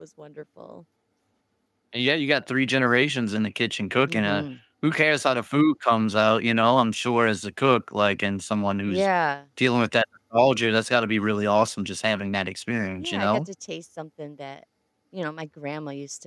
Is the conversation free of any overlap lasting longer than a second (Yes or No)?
Yes